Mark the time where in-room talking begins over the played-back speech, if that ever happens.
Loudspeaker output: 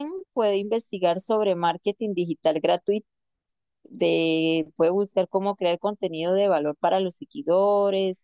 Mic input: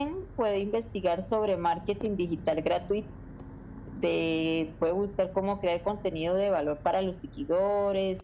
none

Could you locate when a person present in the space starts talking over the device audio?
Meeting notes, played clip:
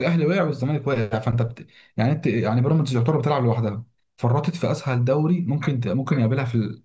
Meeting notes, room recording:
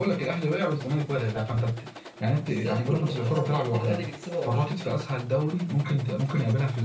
2.5 s

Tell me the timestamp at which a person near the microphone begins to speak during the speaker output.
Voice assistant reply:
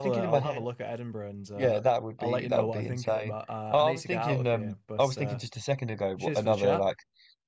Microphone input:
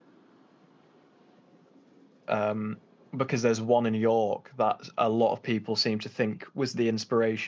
2.3 s

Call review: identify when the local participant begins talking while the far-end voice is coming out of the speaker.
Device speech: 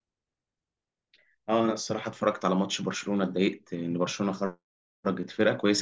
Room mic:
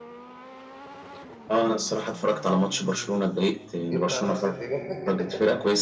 3.9 s

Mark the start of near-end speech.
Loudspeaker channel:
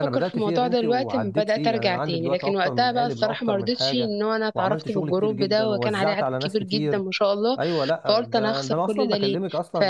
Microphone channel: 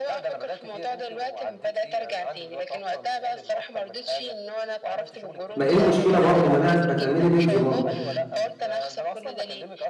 5.6 s

